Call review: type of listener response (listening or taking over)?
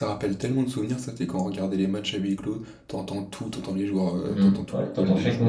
taking over